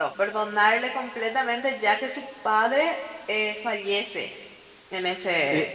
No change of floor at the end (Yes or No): No